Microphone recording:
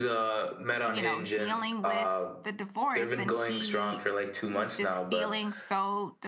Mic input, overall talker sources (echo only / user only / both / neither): both